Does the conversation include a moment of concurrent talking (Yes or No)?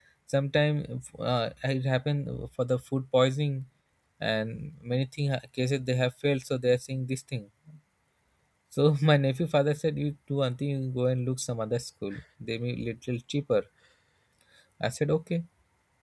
No